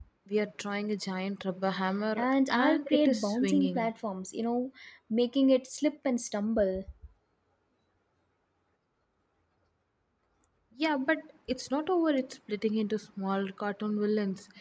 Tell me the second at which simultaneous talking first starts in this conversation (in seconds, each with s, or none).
2.2 s